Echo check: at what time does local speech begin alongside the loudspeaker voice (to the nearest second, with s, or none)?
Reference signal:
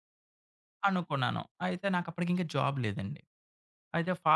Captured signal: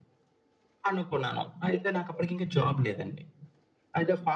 none